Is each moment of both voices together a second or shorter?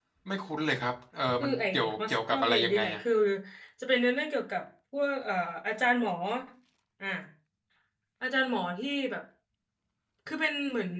No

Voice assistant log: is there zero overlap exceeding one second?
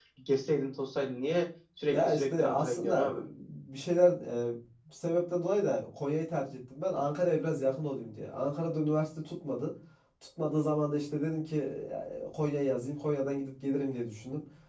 No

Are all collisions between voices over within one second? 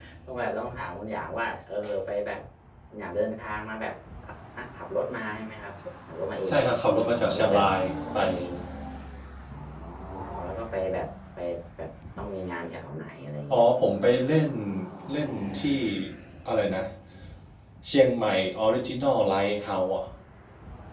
Yes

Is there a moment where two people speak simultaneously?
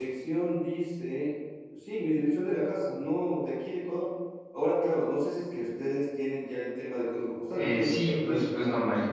Yes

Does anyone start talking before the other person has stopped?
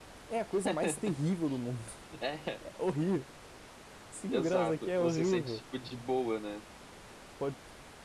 Yes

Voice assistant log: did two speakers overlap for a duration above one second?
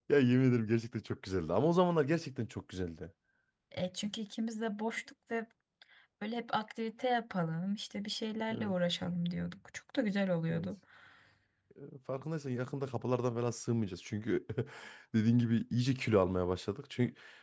No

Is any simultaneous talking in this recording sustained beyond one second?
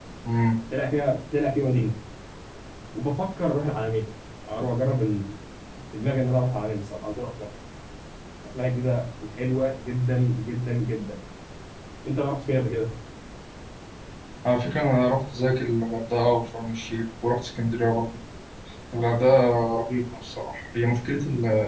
No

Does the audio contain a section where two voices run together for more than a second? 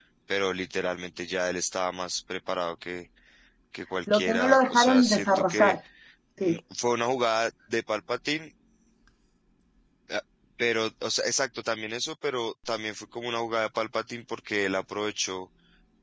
Yes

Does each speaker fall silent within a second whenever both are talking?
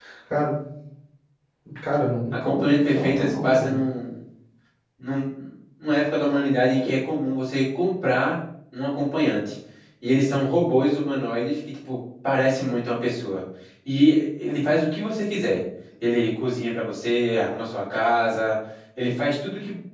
No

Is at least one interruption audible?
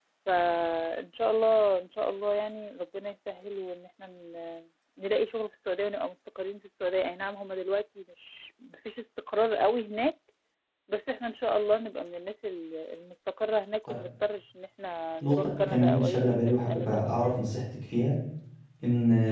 Yes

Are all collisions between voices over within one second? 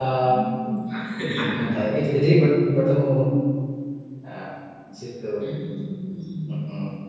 Yes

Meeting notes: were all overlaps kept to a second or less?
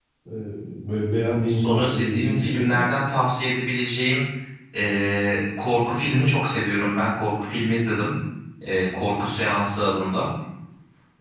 No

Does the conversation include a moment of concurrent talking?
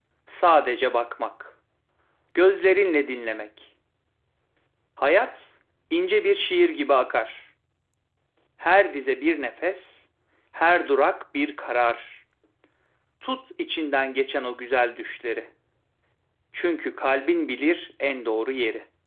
No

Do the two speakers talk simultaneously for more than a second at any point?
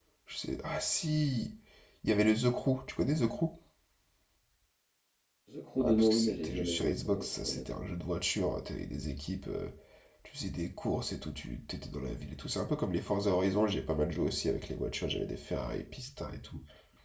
Yes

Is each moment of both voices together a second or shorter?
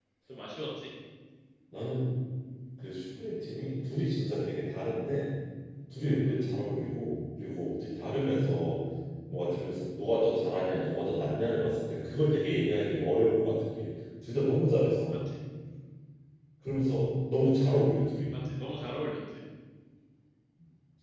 Yes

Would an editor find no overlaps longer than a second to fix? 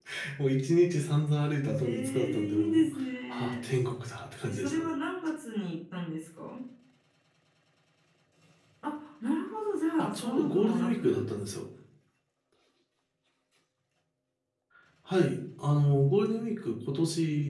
No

